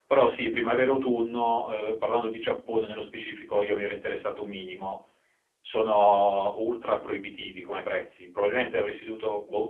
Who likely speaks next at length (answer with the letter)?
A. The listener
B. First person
B